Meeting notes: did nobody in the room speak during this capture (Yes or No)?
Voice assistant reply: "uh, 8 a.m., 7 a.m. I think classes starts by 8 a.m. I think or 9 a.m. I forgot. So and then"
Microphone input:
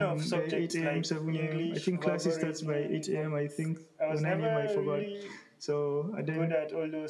No